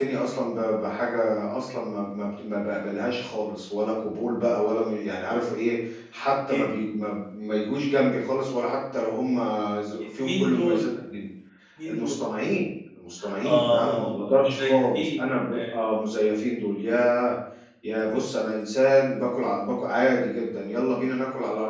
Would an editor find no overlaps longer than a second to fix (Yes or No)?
No